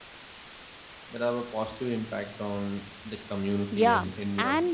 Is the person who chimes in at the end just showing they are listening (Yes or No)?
No